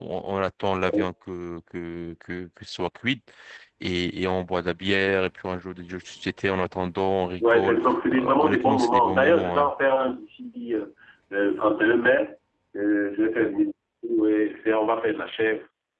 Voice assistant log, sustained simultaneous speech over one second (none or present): present